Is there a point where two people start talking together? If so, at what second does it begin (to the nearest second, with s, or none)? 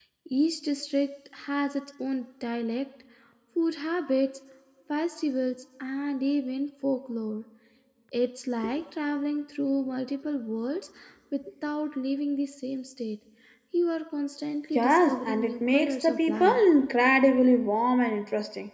15 s